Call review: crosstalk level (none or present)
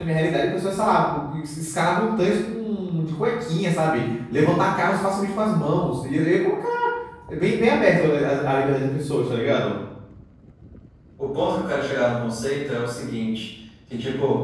none